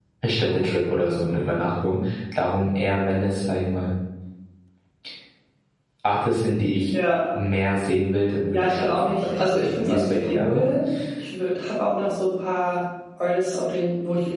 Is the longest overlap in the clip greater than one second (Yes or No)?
Yes